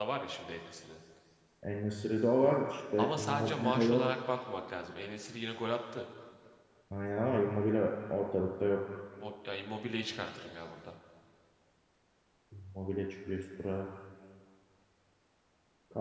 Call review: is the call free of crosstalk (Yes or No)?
No